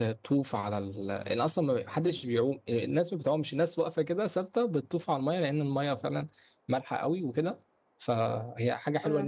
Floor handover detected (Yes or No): Yes